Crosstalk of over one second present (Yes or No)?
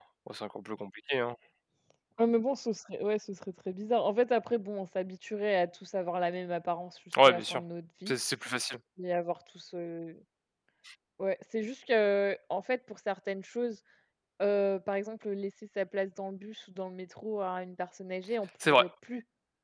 No